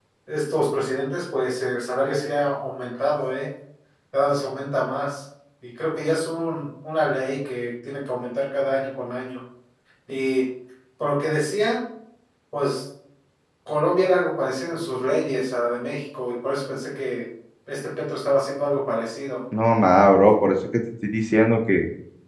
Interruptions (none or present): none